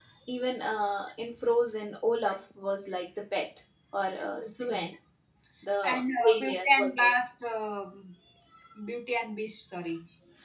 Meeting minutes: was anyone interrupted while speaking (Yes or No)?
Yes